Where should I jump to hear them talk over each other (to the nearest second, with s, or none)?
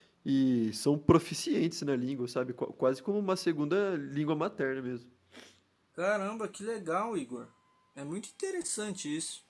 none